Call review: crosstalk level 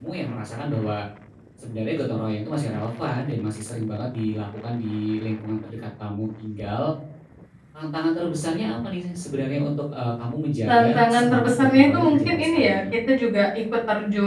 present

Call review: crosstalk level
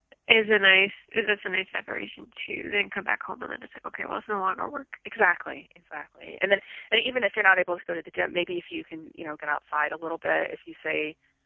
none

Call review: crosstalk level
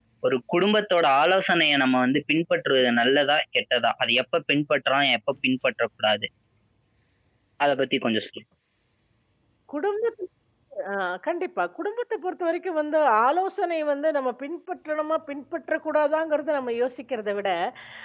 none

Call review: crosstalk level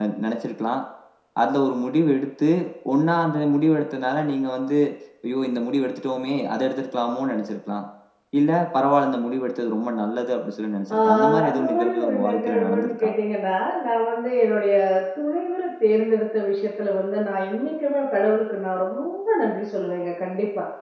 present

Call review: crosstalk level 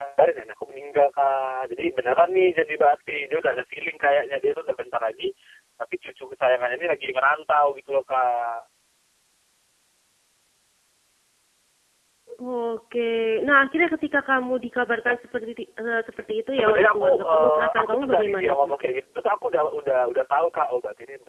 present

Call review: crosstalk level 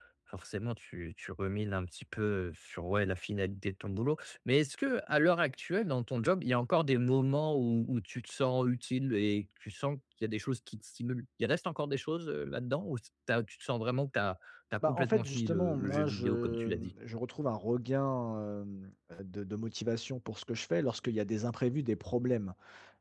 present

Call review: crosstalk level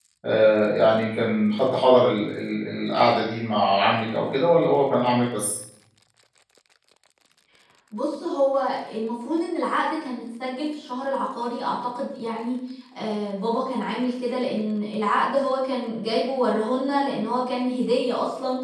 none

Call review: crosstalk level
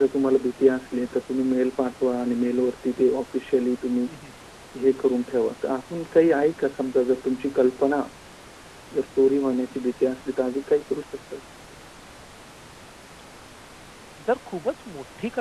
none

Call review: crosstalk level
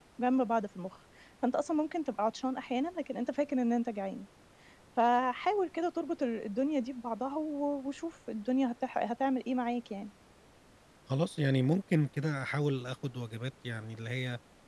none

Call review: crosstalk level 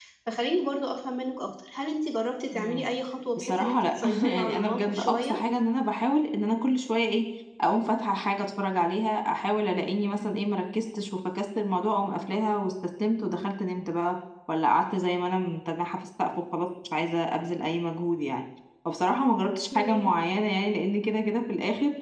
present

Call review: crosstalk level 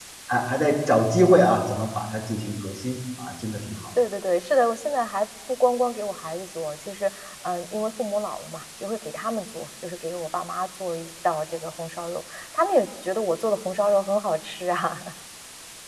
none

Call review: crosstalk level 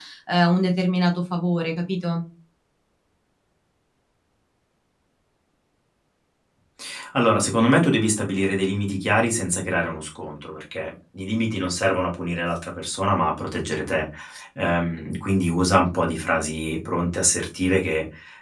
none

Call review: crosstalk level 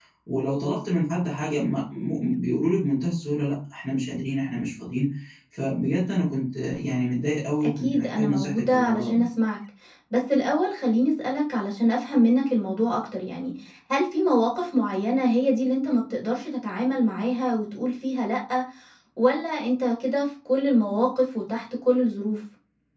present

